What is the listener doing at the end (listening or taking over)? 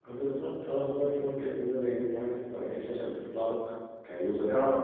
listening